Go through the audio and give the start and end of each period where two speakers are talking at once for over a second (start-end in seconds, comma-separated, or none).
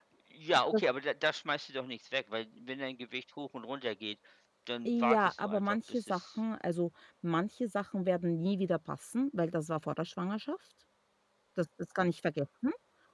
4.8-6.2